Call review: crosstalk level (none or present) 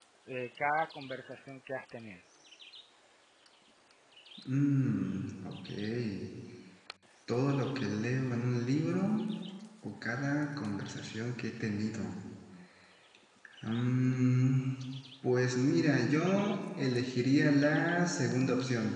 none